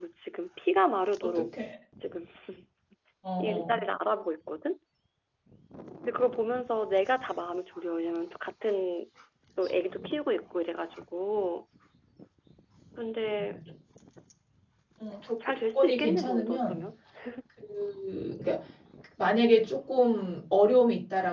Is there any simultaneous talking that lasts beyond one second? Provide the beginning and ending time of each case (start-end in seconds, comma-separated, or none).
15.4-16.8